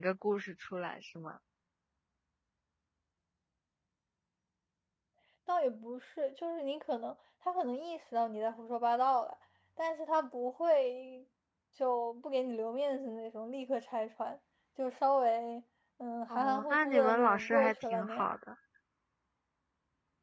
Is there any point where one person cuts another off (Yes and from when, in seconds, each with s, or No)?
Yes, from 16.3 s